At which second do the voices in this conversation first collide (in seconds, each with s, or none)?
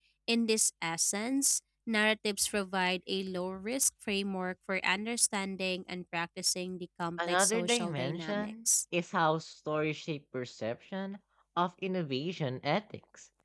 7.2 s